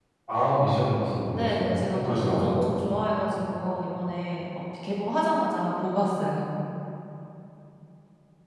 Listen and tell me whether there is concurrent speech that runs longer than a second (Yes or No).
Yes